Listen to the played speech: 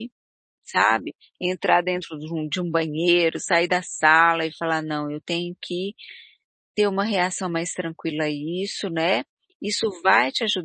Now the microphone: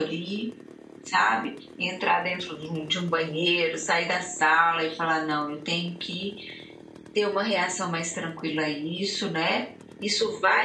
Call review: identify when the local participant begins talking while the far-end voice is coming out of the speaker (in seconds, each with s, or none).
none